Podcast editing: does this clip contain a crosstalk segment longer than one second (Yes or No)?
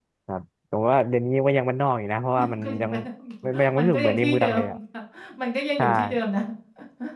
Yes